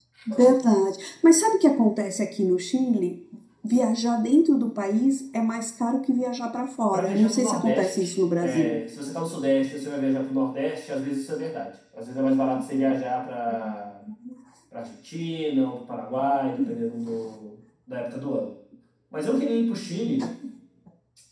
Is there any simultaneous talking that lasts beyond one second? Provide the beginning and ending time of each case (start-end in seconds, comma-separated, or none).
6.9-8.8